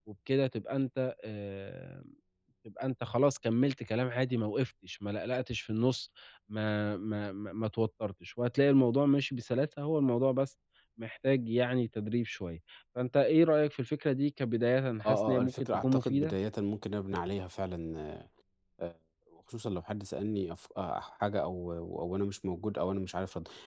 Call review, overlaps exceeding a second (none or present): present